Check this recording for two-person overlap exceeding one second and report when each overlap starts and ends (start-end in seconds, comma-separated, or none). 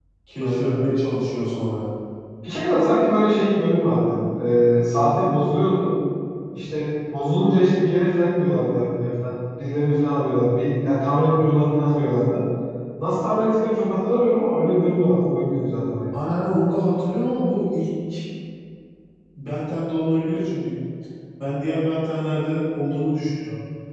none